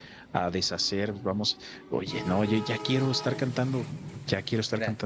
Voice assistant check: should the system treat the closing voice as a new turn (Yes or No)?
Yes